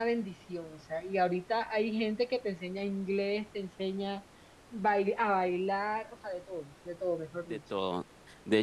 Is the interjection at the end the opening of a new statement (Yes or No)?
Yes